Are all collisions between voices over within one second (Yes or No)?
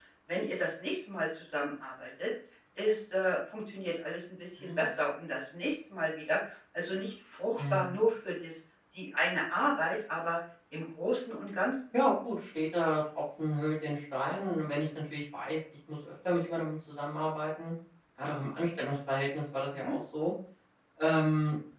Yes